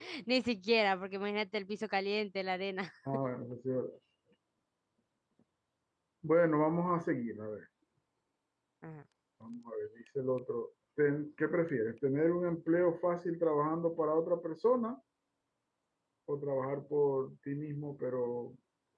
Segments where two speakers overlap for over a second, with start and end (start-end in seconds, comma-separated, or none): none